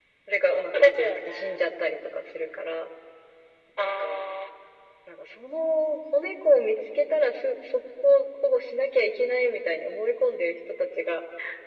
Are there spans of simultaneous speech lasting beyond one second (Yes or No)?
Yes